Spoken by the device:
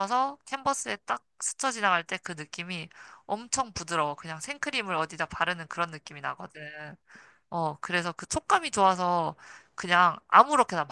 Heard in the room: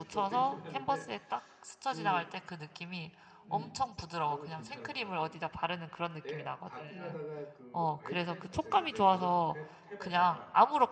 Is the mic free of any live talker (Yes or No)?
No